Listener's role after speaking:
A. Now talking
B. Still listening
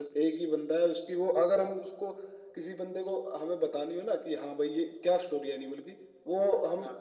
B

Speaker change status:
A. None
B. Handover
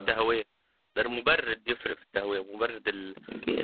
B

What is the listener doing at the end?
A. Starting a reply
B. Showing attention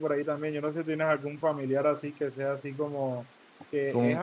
B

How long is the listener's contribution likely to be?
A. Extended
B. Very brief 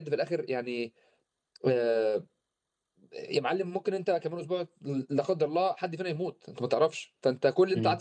B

